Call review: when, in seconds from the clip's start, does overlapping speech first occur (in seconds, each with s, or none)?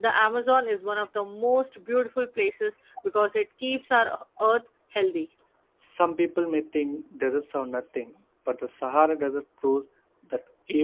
none